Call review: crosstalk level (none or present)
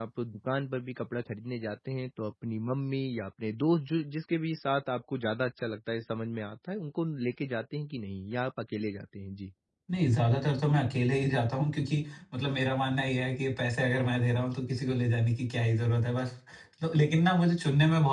none